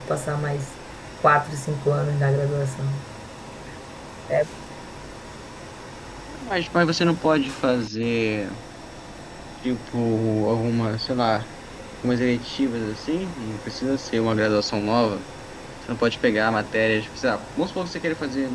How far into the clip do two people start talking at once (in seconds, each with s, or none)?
none